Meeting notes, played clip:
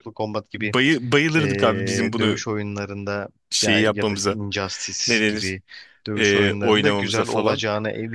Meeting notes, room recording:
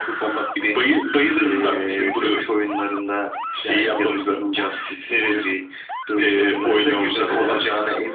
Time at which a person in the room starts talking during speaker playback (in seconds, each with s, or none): none